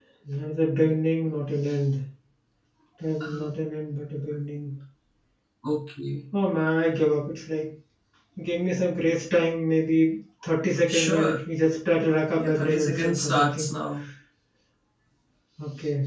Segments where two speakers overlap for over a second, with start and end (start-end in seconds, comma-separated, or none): 12.4-13.7